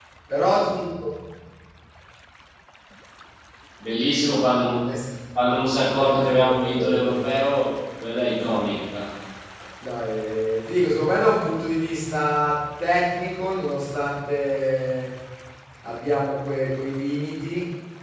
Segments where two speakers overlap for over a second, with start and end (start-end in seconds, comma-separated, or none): 6.0-7.3